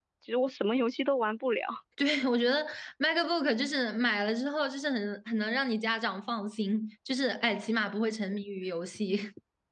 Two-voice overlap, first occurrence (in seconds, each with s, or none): none